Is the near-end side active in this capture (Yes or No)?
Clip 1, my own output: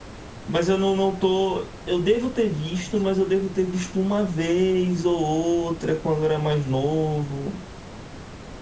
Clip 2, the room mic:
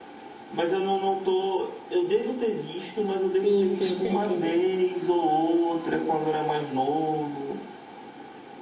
Yes